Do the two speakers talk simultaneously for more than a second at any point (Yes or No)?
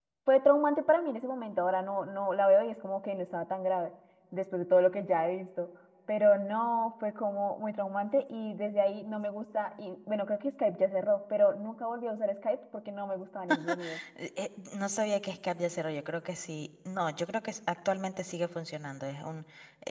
No